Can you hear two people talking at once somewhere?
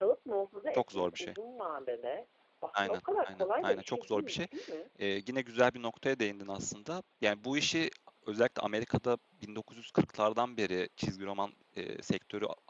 Yes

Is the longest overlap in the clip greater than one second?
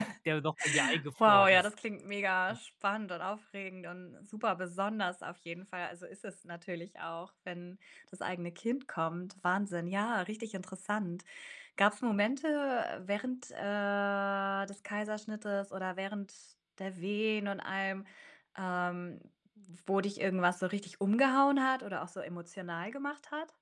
No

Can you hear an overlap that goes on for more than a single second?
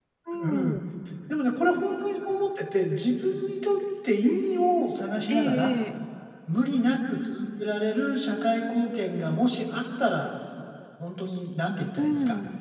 No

